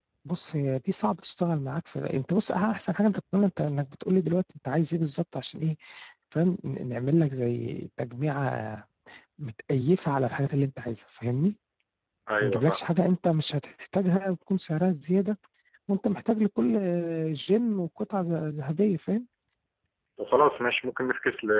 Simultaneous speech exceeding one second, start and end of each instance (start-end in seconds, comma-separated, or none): none